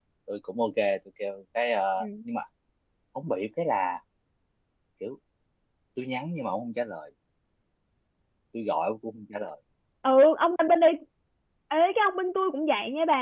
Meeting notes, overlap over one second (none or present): none